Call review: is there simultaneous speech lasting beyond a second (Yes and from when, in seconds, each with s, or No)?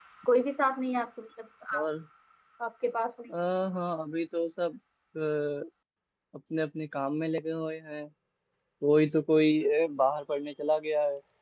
No